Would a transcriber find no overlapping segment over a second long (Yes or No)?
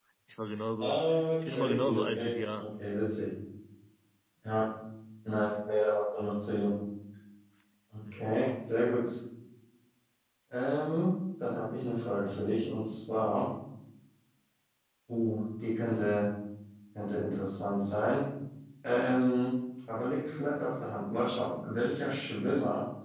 No